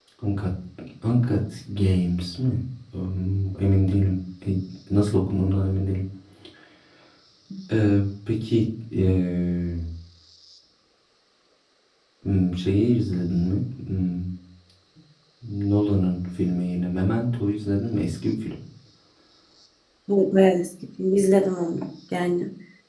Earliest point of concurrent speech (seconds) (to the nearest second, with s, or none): none